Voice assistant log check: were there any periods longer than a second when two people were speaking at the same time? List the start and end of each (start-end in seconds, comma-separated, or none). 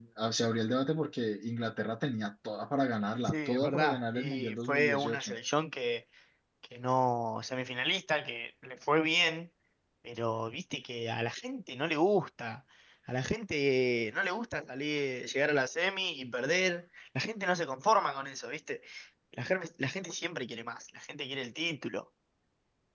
3.3-5.4